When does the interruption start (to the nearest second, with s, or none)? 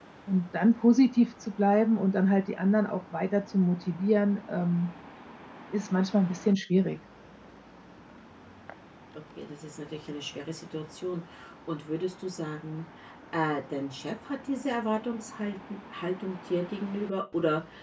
none